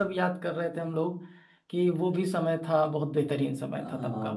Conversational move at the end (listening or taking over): taking over